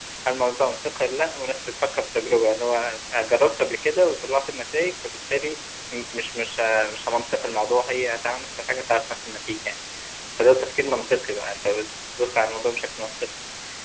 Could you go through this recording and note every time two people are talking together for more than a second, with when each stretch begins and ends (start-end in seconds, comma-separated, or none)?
none